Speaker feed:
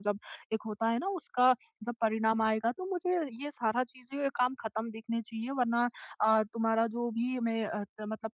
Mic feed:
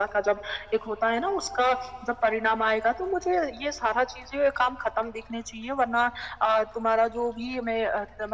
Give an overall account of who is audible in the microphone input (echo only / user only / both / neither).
echo only